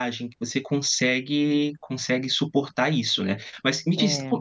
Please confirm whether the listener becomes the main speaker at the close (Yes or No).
No